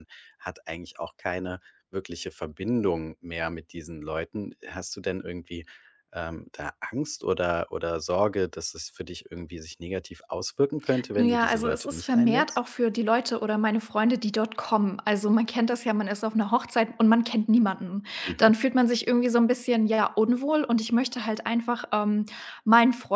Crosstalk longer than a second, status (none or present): present